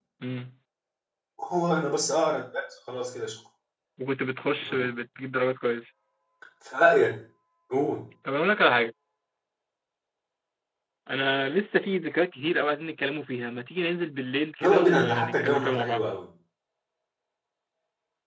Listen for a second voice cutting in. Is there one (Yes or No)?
Yes